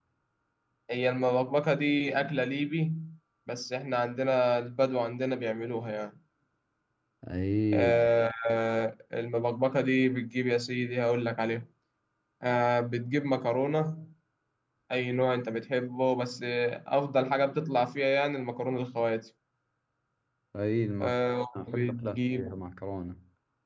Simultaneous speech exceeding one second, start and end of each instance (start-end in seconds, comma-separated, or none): 21.0-22.6